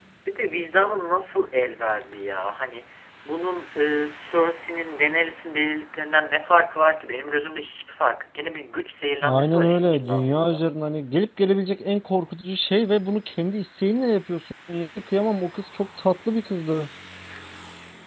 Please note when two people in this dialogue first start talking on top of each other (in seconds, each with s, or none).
9.2 s